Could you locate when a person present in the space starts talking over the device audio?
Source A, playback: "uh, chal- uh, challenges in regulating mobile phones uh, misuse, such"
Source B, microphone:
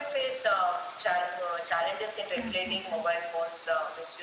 2.4 s

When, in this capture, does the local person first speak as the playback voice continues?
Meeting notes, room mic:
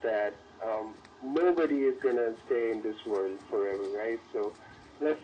none

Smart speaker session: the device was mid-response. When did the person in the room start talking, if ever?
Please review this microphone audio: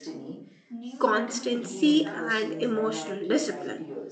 1.0 s

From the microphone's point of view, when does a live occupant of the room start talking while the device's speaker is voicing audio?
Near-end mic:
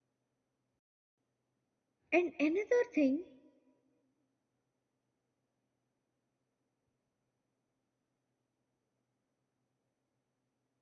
2.1 s

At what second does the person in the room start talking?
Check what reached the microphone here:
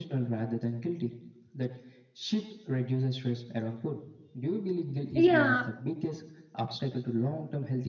5.1 s

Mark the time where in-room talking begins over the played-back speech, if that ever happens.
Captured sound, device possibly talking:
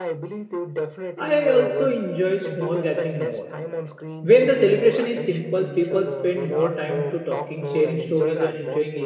1.2 s

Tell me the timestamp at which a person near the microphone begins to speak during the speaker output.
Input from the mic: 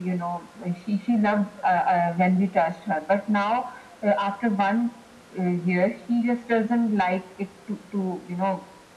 none

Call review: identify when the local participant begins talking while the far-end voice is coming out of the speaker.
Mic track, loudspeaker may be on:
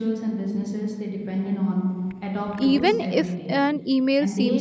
2.5 s

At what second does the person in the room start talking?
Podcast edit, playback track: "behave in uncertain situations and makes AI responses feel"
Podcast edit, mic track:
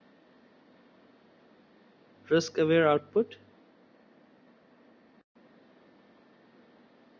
2.3 s

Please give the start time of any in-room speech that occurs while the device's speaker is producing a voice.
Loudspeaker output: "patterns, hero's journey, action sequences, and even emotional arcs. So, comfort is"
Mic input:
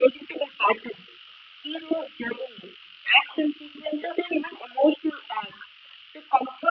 none

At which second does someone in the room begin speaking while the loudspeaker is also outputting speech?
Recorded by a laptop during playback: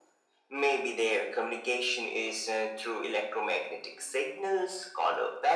none

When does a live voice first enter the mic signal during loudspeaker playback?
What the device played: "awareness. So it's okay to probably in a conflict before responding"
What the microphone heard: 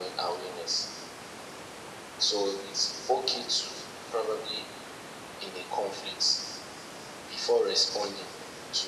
none

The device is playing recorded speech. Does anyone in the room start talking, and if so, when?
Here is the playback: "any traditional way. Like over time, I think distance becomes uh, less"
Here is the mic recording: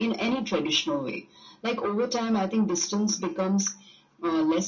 none

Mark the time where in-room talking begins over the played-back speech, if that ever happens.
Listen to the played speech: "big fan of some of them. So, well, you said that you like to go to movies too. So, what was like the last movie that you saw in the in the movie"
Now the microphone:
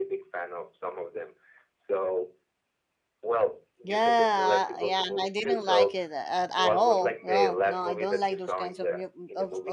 3.8 s

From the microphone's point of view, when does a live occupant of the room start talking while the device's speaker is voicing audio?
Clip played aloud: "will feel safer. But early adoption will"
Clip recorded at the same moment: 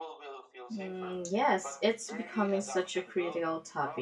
0.7 s

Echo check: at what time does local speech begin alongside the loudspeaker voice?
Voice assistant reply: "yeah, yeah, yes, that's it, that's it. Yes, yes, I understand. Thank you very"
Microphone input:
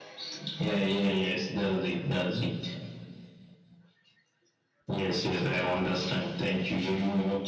none

